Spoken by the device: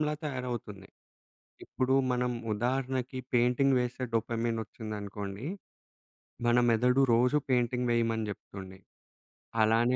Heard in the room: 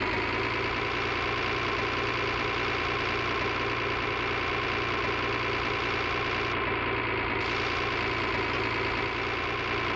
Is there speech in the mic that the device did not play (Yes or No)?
No